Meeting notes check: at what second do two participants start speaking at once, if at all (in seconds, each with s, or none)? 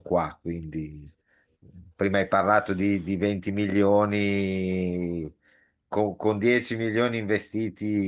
none